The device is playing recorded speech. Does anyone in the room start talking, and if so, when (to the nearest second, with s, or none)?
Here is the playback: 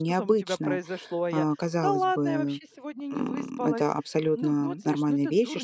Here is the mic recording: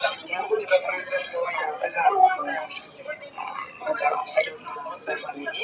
none